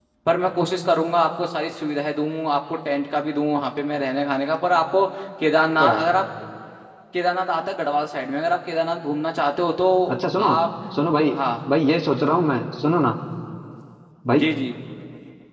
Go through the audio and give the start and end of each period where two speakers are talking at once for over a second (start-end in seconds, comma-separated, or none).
none